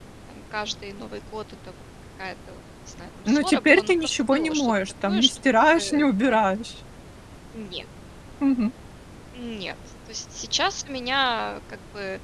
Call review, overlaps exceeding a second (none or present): present